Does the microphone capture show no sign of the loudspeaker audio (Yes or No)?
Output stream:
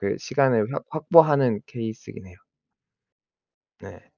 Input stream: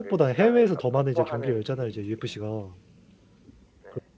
No